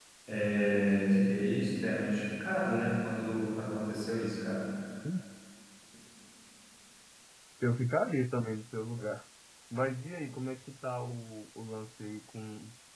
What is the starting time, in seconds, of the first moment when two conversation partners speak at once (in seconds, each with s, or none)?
none